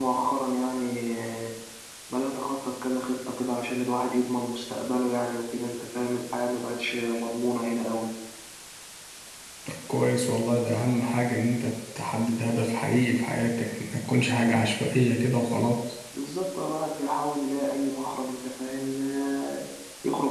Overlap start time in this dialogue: none

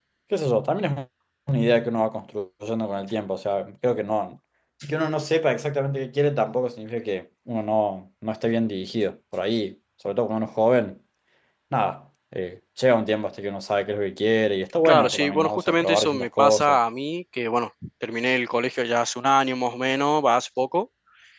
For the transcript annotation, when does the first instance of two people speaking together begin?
14.8 s

